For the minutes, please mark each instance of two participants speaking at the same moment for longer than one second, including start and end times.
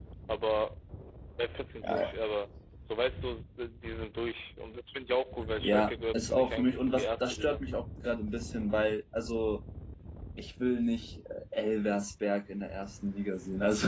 5.6-7.6

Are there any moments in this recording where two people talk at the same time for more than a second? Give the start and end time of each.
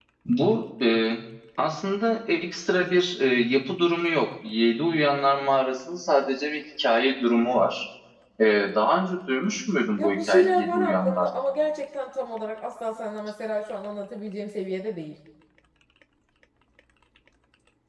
10.0-11.3

